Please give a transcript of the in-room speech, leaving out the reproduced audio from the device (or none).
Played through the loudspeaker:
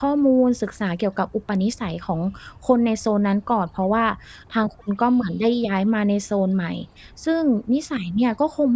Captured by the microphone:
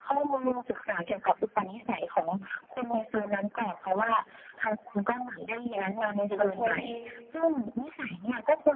มันจะช่วยให้